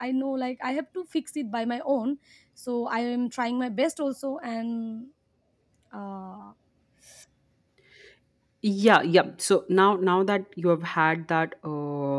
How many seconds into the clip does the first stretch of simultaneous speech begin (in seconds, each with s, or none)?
none